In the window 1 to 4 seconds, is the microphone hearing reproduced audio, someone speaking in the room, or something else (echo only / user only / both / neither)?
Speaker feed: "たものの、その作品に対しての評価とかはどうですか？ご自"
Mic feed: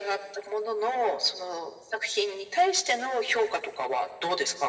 echo only